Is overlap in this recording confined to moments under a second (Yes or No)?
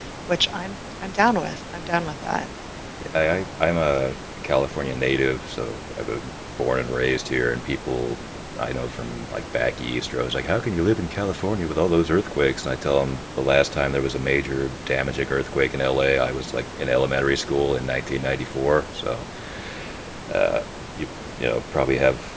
Yes